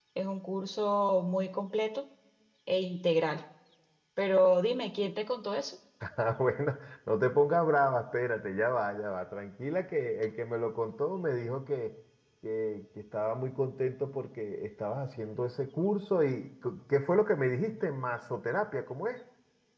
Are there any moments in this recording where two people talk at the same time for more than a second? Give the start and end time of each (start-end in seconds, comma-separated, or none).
none